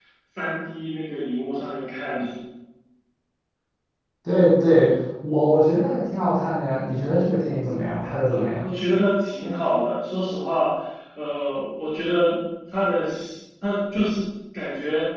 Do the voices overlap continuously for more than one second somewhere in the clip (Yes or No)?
No